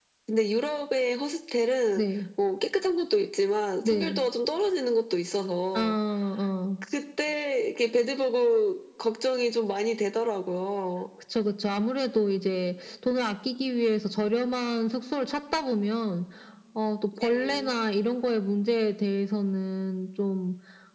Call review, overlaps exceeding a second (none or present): none